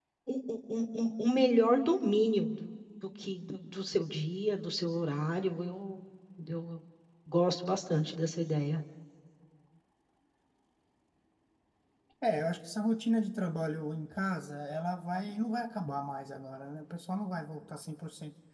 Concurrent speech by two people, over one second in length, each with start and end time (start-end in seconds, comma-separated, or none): none